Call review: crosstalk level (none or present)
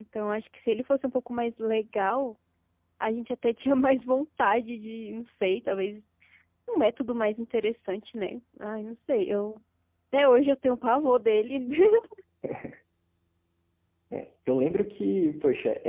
none